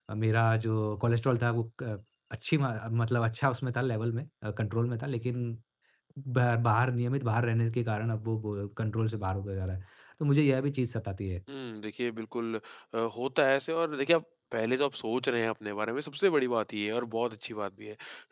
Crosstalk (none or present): none